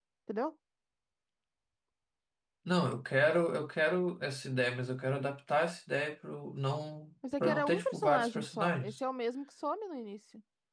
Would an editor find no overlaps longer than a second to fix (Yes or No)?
No